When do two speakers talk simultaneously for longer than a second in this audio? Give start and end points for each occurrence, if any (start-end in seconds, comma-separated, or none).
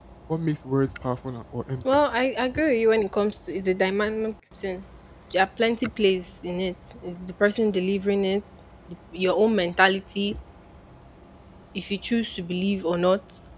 none